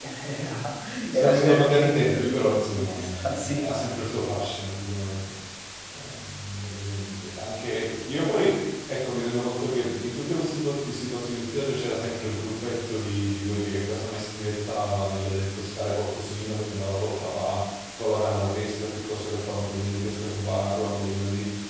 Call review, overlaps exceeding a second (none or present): present